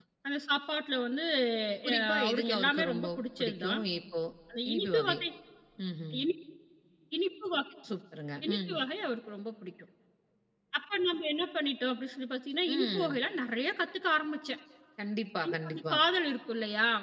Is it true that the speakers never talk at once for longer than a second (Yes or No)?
No